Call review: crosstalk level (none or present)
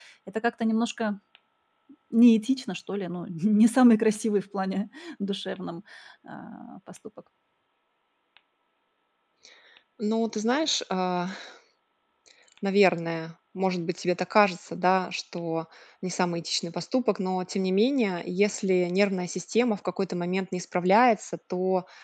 none